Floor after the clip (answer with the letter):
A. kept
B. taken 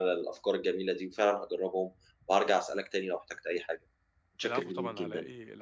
B